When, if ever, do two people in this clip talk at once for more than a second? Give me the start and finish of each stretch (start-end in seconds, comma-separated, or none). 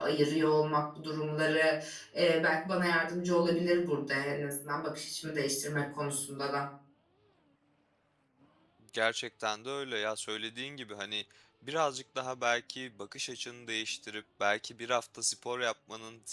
none